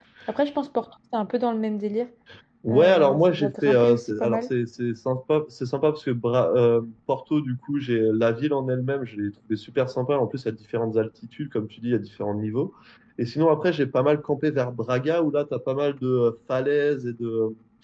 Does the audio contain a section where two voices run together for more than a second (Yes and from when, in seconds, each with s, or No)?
Yes, from 2.7 s